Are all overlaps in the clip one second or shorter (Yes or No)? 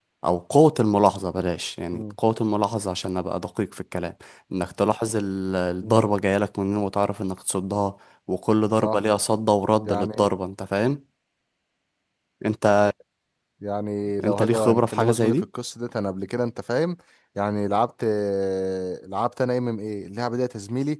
No